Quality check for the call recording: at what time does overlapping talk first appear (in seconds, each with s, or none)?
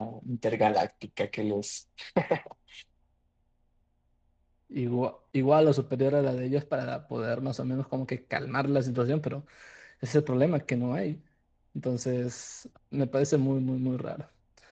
none